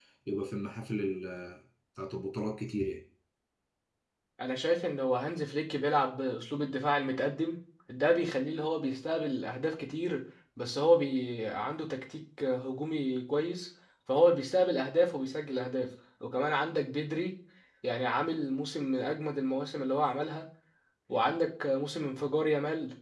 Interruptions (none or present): none